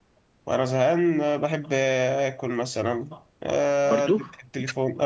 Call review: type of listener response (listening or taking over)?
listening